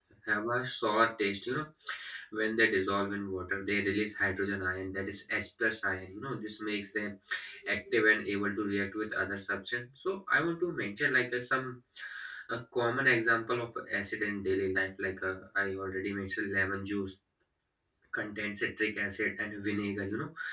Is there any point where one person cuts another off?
No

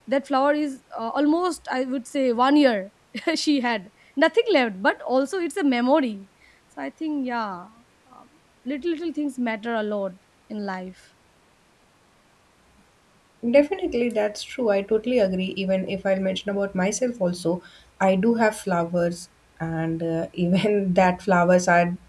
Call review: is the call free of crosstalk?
Yes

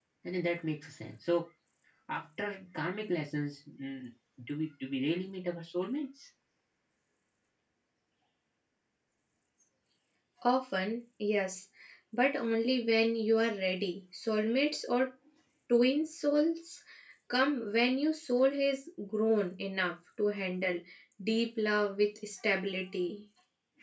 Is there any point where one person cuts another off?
No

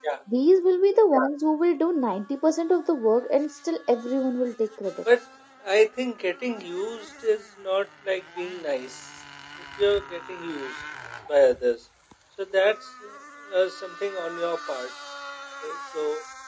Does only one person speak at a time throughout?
Yes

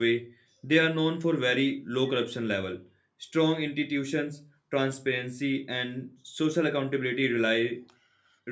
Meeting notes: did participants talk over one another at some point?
No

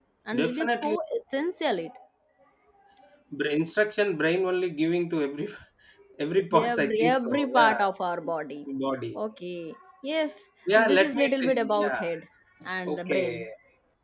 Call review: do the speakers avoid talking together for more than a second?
No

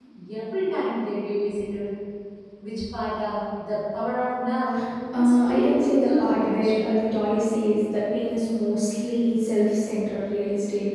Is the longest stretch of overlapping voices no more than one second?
No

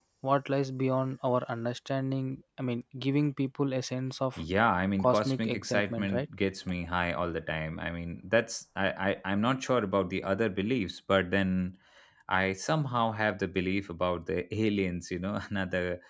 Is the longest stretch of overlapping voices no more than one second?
No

